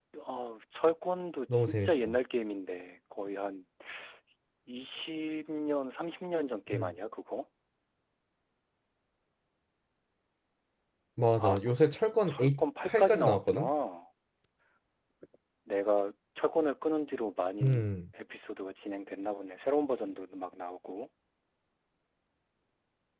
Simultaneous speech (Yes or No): Yes